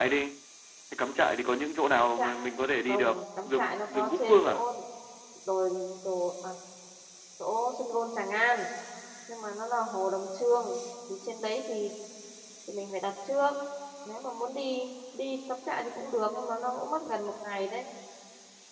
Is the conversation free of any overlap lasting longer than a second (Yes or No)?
No